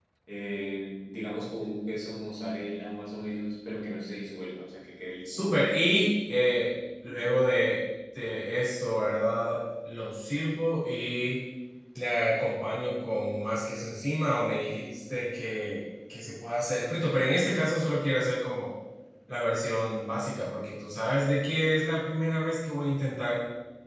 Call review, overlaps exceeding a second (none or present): none